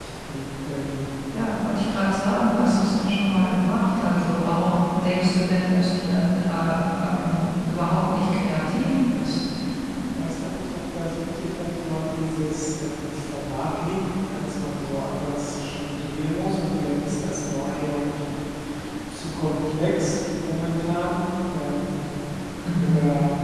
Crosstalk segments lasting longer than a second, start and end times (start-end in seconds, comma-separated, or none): none